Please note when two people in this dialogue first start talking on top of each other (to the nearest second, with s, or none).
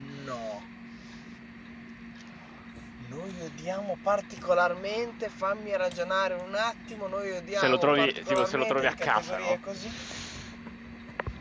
8 s